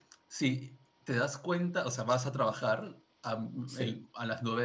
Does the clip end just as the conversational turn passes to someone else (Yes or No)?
No